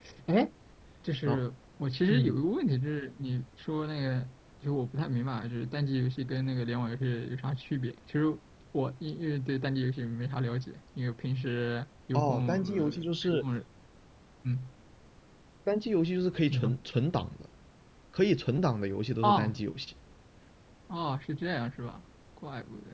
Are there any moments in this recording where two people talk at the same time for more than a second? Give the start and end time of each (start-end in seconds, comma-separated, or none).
12.1-13.4